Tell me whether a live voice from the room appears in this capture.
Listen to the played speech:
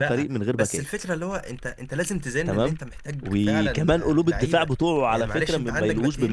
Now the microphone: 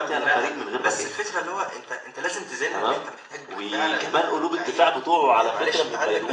No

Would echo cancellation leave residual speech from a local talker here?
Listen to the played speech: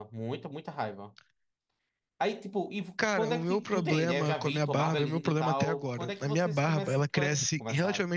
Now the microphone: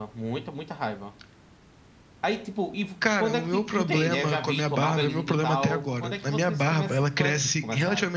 No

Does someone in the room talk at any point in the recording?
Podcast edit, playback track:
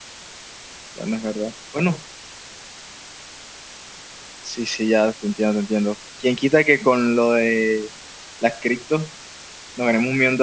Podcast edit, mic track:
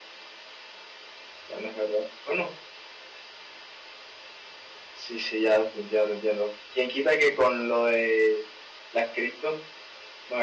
No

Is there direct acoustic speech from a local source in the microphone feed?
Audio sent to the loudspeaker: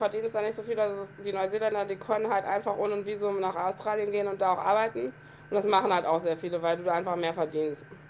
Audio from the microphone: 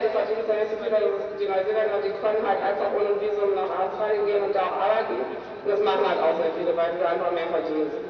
Yes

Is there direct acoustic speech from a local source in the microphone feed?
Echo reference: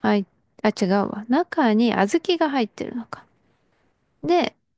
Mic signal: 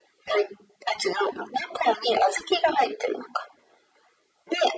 No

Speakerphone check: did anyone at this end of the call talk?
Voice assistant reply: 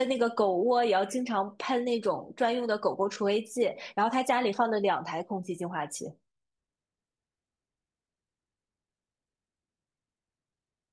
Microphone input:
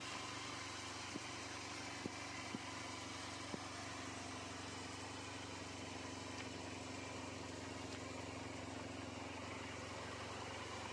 No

